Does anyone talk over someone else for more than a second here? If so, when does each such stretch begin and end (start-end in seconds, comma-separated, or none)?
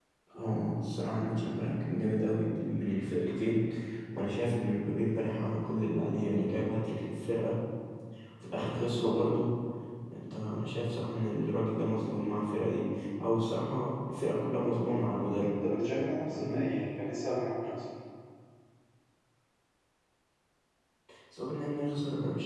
none